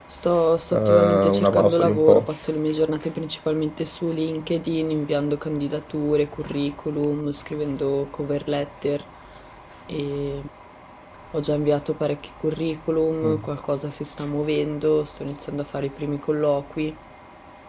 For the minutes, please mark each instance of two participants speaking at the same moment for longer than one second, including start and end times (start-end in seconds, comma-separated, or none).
0.7-2.3